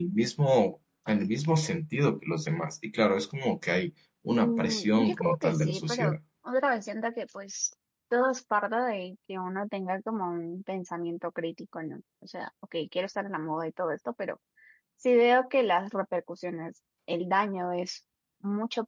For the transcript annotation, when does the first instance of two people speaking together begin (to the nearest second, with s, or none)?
4 s